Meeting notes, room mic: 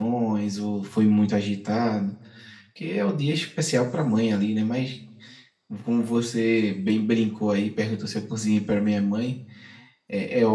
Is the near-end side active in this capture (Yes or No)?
Yes